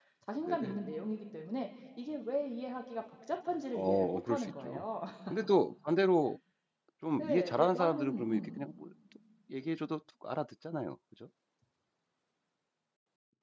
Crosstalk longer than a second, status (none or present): present